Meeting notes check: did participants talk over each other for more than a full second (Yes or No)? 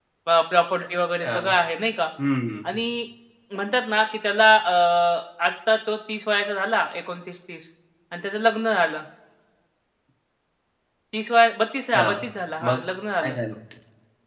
No